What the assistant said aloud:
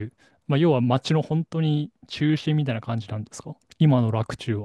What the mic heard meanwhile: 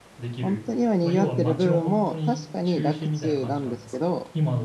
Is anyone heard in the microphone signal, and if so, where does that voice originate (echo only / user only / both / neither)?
both